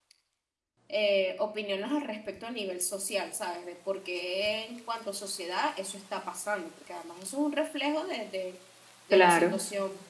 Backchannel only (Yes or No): Yes